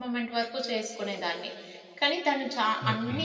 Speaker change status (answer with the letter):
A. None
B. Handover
A